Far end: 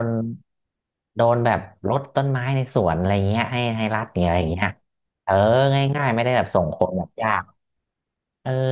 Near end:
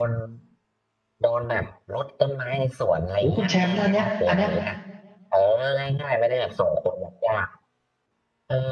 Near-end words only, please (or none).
โอ้คุณแชมป์แล้วอันเนี้ยอันเนี้ย